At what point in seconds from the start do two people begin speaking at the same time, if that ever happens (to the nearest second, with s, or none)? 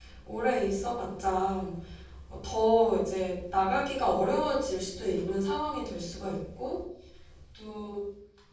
none